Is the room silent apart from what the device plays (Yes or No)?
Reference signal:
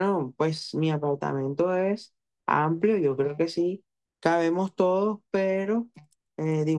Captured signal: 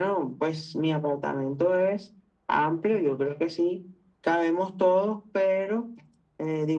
Yes